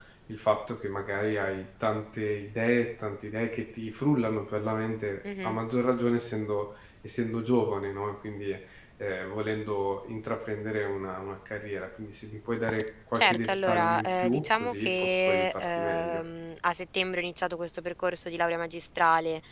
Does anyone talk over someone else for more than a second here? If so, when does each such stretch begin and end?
13.2-16.2

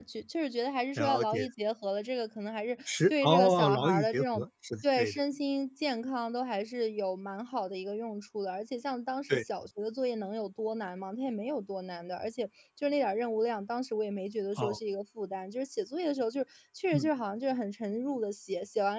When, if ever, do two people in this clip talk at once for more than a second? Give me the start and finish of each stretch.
2.9-4.4

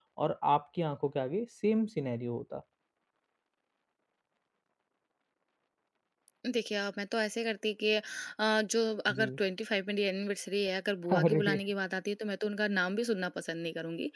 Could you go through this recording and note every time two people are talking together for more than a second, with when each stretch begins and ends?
none

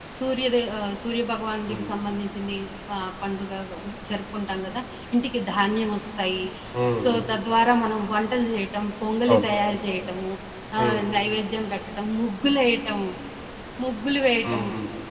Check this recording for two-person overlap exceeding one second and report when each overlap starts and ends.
none

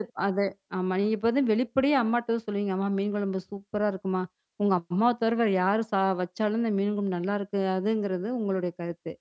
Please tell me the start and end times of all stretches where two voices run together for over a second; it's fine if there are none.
none

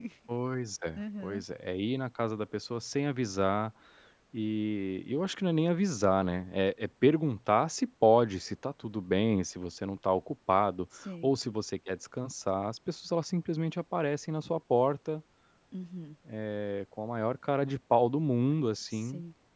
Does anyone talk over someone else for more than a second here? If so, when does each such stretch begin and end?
none

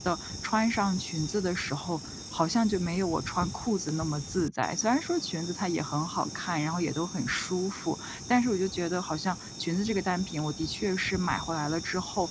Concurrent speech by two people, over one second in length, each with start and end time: none

